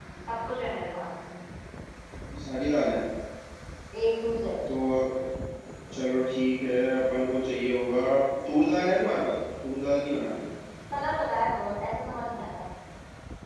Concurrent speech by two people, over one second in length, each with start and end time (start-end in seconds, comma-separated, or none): none